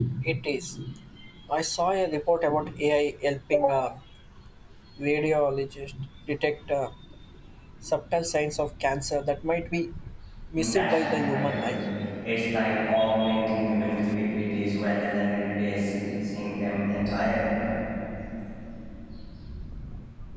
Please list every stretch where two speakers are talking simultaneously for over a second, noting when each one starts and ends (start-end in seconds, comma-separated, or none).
10.6-11.8